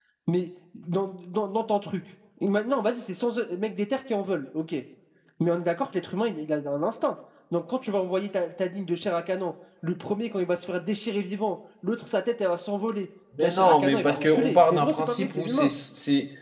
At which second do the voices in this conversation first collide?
13.3 s

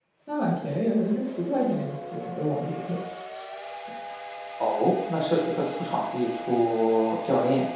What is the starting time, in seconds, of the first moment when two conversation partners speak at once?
none

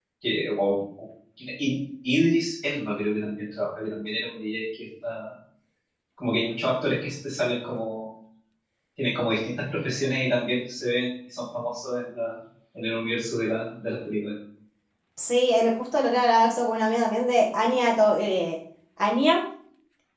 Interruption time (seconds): none

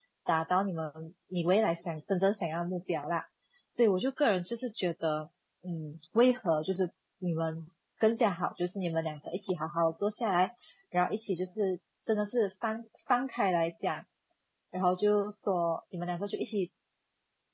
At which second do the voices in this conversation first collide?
none

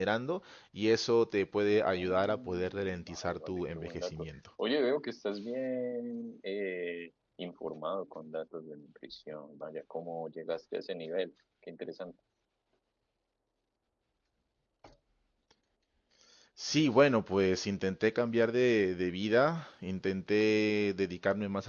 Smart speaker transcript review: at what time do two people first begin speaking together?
1.9 s

